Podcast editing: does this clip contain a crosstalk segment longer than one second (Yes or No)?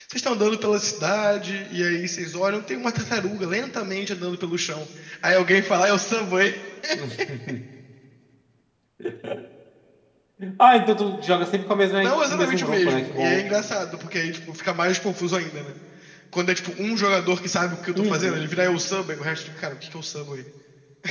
Yes